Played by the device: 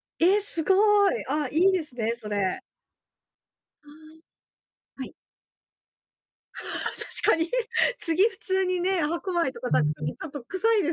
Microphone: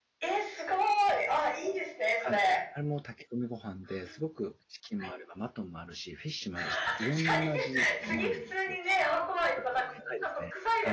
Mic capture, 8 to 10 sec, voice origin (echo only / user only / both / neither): both